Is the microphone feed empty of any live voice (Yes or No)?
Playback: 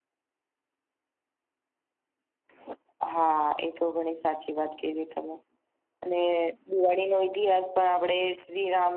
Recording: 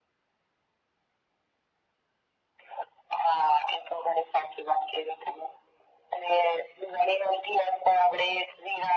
Yes